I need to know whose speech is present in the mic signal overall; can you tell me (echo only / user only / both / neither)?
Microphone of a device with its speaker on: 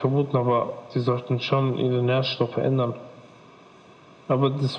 echo only